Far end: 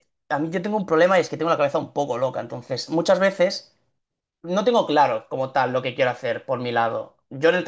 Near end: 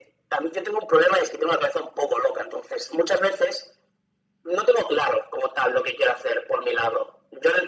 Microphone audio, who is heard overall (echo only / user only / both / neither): echo only